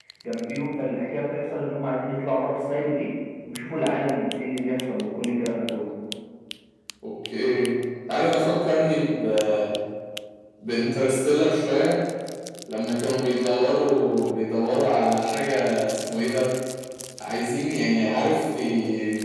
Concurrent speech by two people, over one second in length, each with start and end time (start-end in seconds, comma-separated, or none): none